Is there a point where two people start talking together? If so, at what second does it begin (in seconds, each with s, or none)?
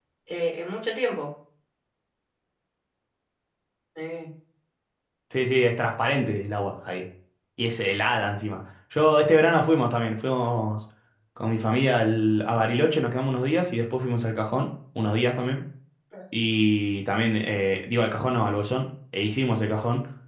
none